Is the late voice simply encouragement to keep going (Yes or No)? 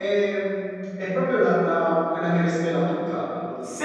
No